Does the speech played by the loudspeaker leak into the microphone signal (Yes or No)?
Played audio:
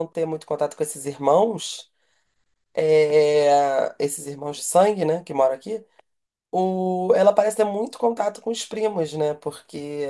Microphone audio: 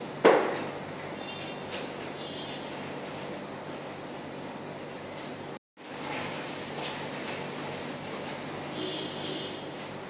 No